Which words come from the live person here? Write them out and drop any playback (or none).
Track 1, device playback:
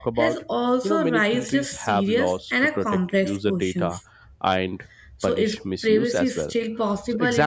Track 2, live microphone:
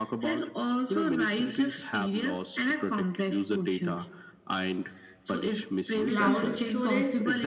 cloud storage,